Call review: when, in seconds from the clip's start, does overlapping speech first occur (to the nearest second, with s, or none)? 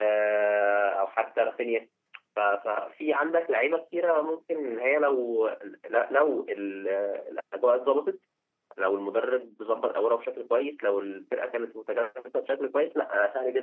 none